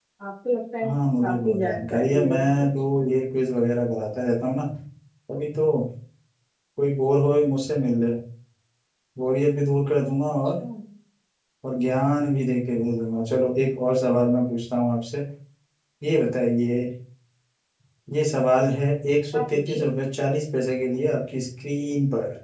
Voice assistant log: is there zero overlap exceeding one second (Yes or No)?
No